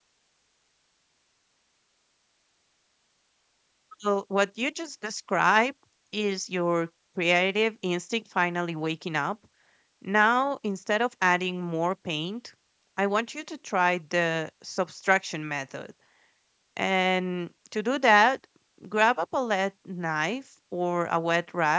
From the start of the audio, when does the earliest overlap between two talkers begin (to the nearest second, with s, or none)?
none